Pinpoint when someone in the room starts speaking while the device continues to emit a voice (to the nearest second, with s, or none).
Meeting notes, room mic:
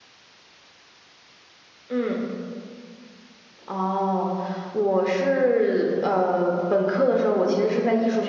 none